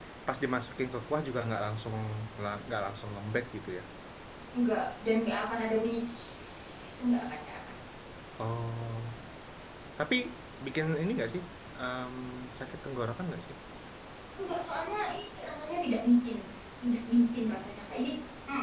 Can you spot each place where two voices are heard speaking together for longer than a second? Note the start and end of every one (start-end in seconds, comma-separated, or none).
none